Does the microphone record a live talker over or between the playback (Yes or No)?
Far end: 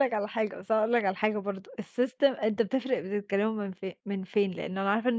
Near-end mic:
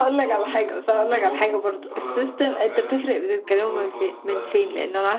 Yes